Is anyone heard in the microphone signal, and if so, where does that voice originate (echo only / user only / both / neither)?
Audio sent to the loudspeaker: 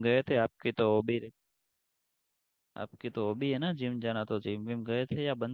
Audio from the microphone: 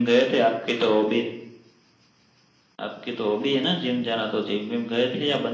echo only